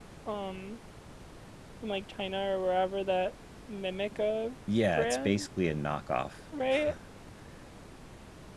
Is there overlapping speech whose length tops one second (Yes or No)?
No